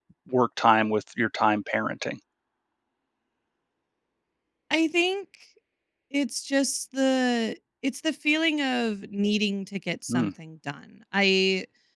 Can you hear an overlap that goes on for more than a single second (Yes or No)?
No